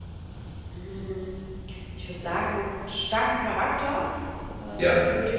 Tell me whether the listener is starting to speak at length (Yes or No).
No